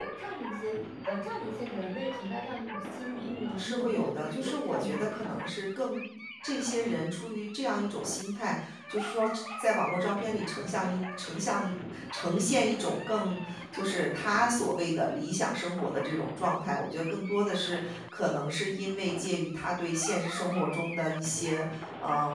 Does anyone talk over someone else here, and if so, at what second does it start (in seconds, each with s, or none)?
3.1 s